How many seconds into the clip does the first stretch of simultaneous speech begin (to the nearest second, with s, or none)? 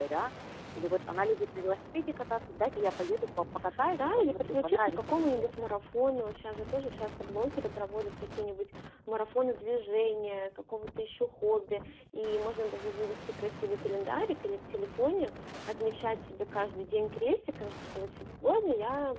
4 s